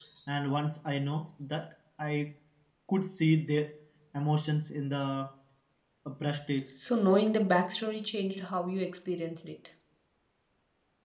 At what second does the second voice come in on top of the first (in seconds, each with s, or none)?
none